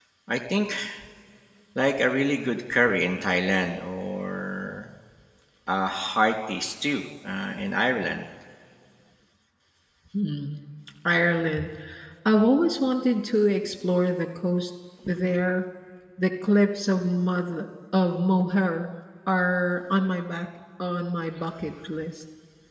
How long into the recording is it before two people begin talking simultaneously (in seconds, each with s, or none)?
none